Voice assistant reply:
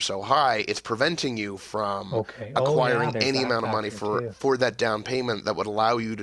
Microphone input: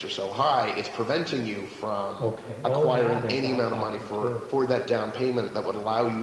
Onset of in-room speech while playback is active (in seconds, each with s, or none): none